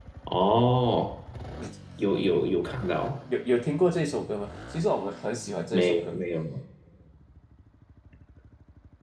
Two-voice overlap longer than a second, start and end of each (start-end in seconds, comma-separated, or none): none